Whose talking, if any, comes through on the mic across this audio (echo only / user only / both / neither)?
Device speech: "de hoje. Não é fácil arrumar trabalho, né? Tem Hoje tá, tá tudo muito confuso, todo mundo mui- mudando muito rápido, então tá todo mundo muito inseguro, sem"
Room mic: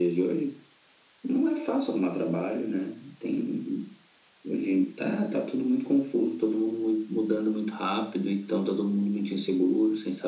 echo only